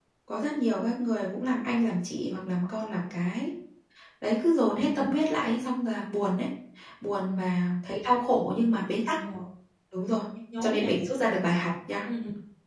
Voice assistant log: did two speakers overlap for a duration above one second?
No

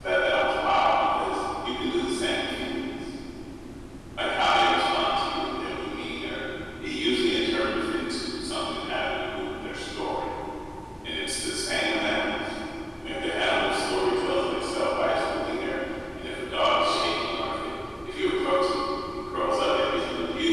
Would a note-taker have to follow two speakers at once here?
No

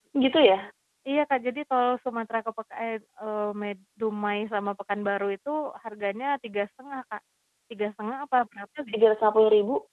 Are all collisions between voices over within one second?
Yes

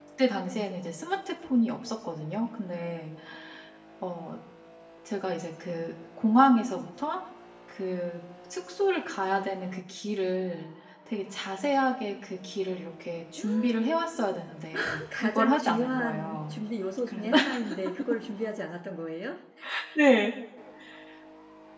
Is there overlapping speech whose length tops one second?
Yes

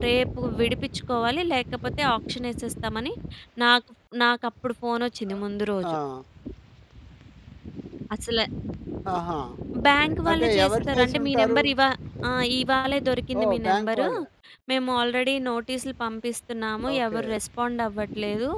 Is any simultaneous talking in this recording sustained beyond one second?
Yes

